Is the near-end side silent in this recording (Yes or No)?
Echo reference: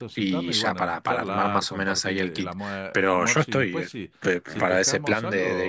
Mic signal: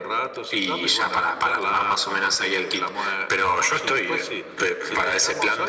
Yes